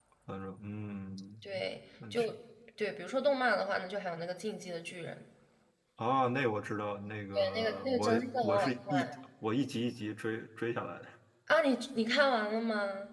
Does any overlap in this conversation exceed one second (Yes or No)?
Yes